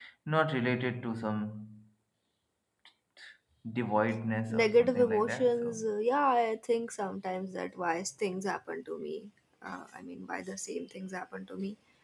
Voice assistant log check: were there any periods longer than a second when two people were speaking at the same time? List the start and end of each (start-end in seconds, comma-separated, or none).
4.5-5.8